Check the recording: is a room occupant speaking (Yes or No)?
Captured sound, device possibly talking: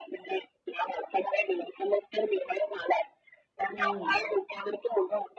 Yes